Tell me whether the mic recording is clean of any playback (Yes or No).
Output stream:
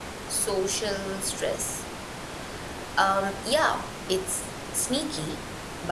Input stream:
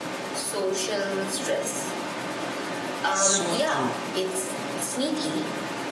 No